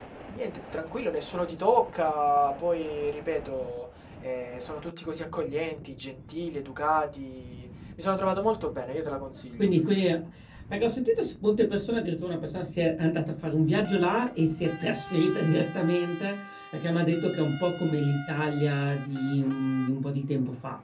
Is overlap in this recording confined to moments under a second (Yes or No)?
Yes